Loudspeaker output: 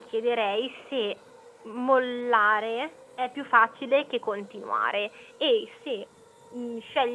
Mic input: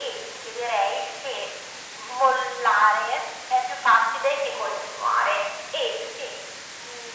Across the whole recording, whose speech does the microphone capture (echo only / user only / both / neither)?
echo only